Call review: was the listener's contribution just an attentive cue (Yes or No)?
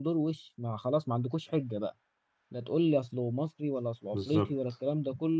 Yes